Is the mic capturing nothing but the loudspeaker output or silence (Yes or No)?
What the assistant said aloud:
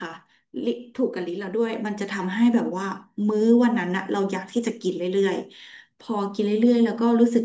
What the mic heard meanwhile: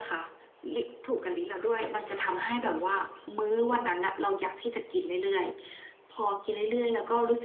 Yes